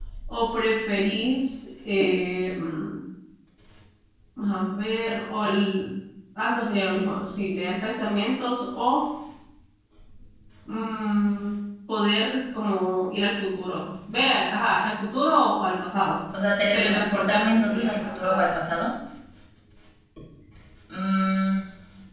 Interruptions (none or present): present